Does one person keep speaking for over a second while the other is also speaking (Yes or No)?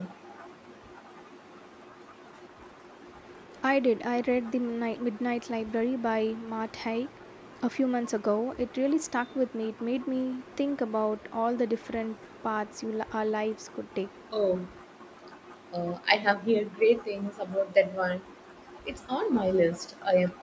No